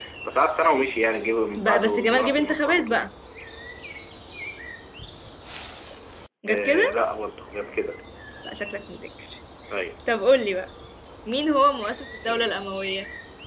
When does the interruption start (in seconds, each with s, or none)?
1.6 s